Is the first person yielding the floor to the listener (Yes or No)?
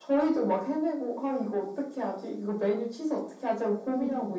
No